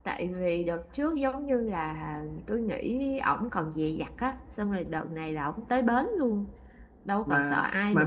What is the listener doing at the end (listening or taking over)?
taking over